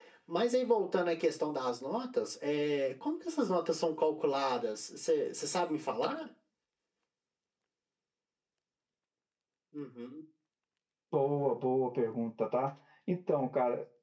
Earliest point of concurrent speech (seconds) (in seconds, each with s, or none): none